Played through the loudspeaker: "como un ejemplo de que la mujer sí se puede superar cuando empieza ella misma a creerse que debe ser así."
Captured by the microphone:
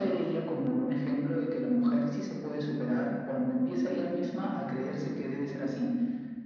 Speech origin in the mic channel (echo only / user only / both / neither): echo only